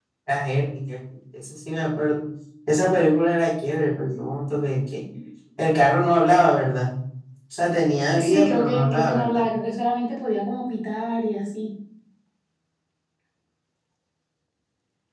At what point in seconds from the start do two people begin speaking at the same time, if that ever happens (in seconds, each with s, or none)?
8.1 s